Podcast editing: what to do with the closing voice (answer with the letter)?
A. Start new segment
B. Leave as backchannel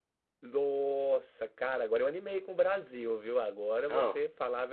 B